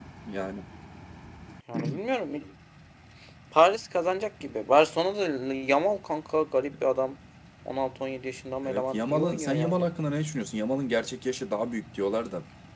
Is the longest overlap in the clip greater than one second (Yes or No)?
Yes